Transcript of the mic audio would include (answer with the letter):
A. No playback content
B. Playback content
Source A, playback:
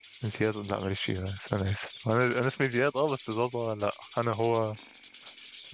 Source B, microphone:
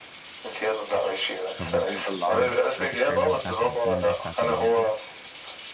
B